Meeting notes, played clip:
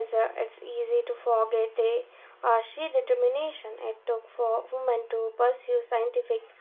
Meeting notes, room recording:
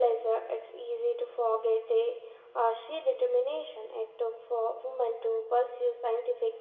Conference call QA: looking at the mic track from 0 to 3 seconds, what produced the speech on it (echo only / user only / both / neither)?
echo only